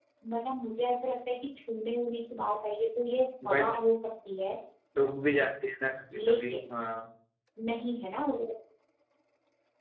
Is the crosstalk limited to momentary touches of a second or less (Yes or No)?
Yes